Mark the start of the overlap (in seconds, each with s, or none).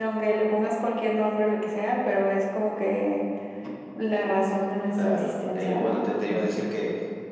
5.0 s